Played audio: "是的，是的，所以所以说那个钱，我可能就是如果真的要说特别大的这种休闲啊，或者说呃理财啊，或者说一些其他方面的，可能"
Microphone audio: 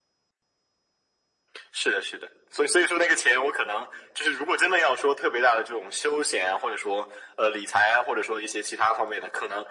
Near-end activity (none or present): none